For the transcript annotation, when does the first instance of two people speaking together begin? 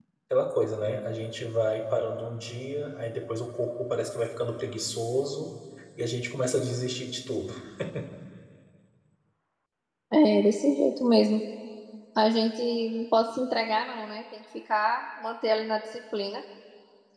none

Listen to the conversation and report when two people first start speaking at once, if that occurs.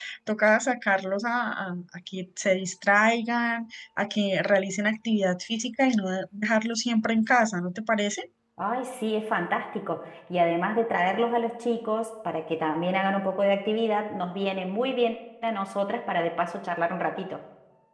none

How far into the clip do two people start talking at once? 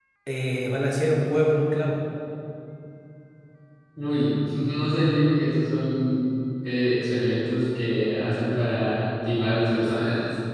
none

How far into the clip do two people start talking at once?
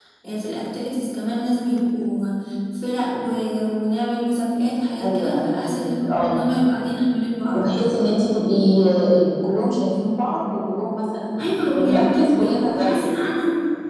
5 s

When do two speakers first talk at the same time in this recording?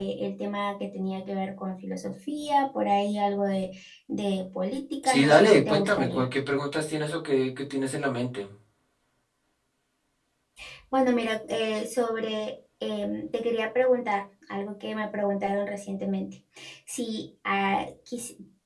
5 s

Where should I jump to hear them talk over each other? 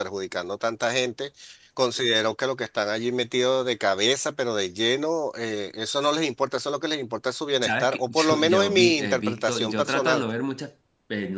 8 s

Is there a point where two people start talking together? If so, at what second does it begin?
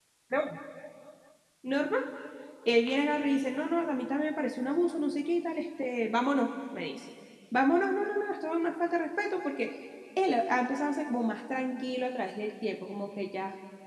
none

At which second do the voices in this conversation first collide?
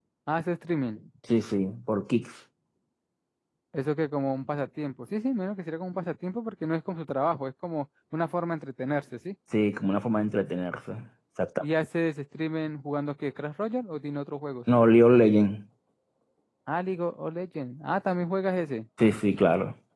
none

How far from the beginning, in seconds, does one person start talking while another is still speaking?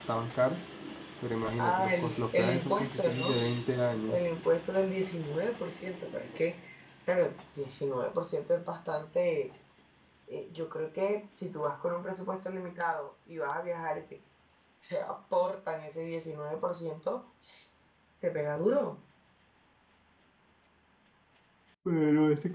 2 s

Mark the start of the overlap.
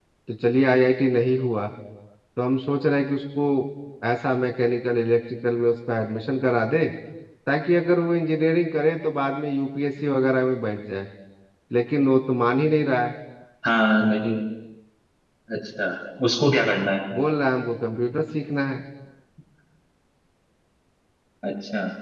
none

